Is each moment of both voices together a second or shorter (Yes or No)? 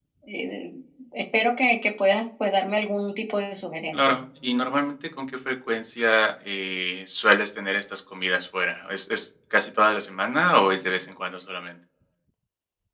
Yes